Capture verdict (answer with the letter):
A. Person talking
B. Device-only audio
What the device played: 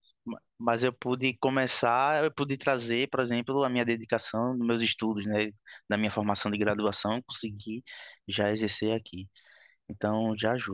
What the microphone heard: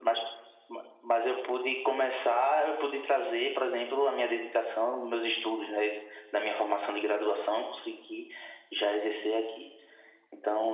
B